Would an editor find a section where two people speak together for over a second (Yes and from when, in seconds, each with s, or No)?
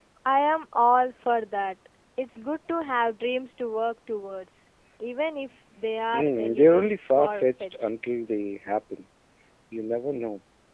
Yes, from 6.1 s